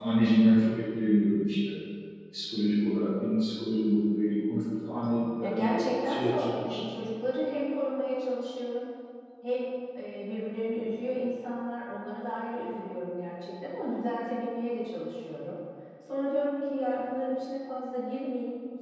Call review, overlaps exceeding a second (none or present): present